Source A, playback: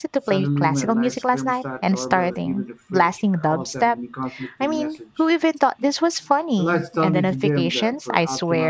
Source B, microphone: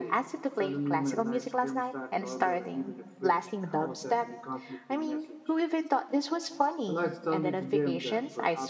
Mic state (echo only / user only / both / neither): echo only